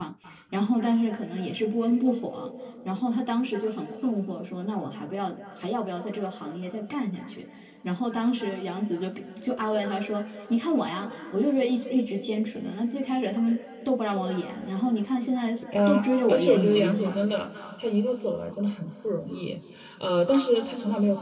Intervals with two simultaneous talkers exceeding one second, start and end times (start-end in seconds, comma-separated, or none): 15.9-17.2